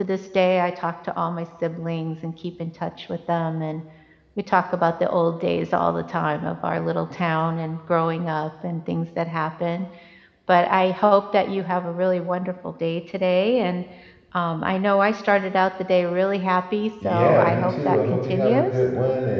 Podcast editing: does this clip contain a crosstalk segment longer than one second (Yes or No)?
Yes